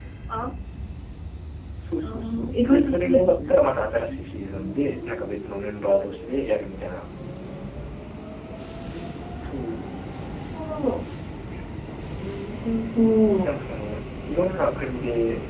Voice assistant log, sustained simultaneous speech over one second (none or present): present